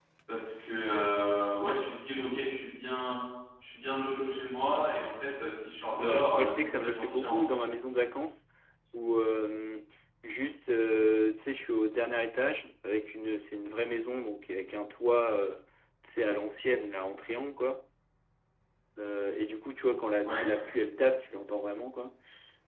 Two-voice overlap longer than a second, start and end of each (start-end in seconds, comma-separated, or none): 6.0-7.6